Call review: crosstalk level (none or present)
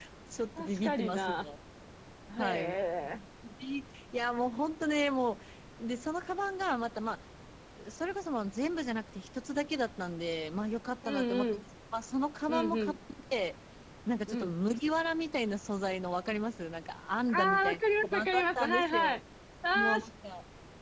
present